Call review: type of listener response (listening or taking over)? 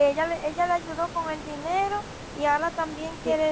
taking over